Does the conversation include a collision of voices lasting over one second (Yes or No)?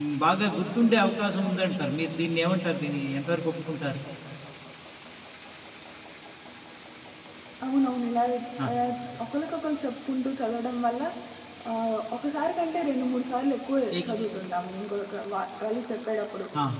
No